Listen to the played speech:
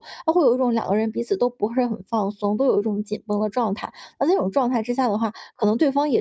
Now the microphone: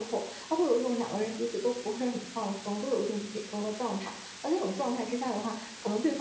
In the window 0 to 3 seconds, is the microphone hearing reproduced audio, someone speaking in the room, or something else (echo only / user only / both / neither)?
echo only